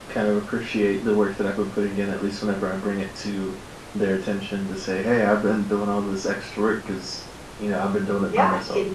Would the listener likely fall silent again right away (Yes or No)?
No